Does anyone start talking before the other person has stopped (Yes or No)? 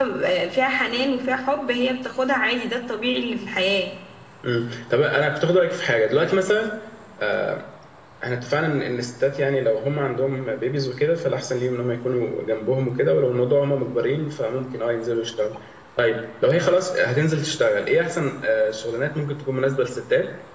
No